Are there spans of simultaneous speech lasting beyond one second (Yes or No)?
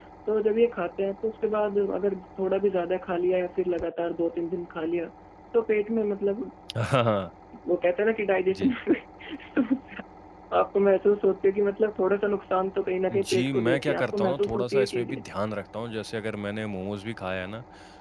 Yes